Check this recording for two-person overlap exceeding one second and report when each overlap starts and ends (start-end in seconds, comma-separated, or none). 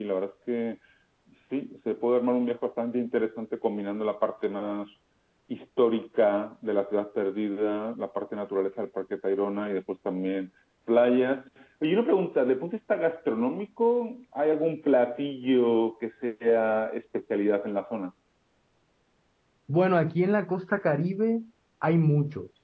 none